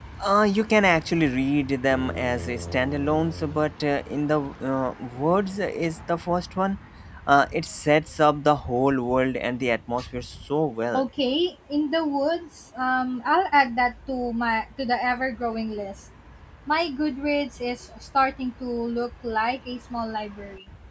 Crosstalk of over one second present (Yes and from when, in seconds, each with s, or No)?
No